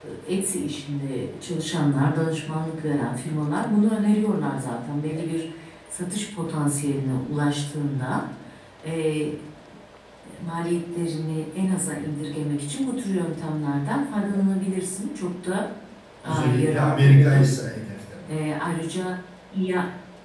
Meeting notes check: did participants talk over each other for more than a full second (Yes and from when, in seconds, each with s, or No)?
Yes, from 16.2 s